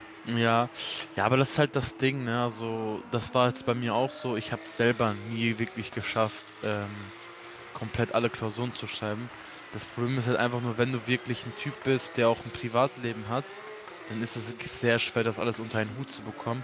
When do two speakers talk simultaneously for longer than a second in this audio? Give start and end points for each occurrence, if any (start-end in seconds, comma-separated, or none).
none